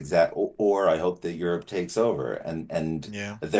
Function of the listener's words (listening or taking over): listening